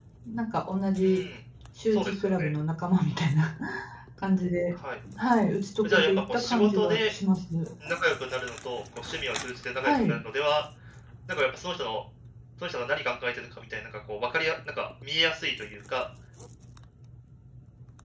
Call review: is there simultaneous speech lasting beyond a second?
Yes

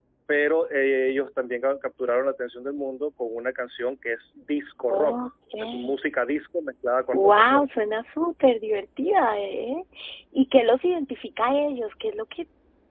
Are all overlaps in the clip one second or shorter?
Yes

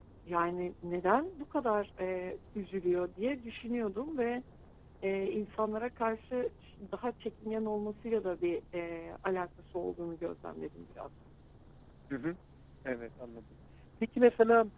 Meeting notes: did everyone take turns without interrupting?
Yes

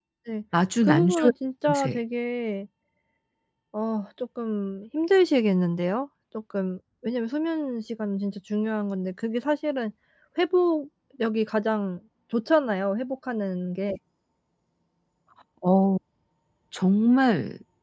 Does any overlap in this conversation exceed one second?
No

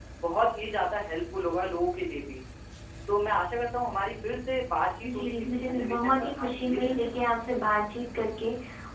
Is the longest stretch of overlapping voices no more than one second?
No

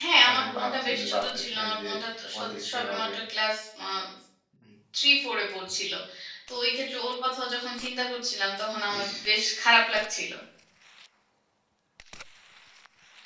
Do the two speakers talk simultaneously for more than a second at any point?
Yes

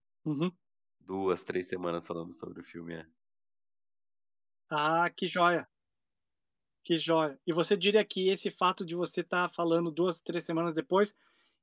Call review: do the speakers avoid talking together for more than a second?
Yes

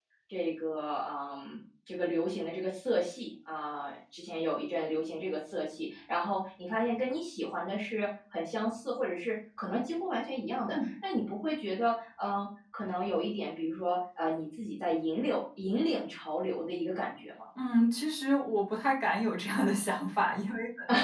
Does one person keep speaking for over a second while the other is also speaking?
No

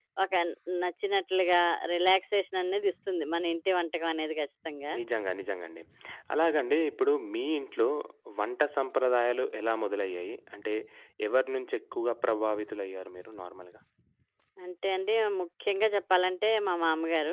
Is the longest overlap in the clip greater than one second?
No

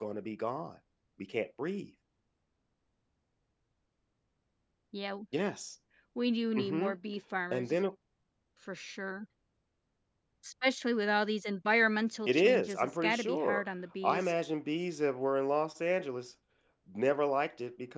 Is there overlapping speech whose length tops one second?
Yes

